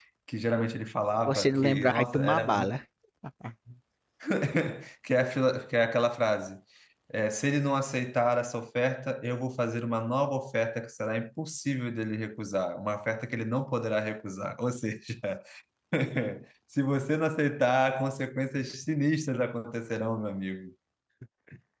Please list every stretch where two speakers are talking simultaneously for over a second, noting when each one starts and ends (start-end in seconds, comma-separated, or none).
1.2-2.8